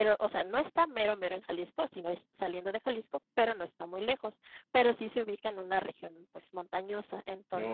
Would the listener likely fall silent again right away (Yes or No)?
Yes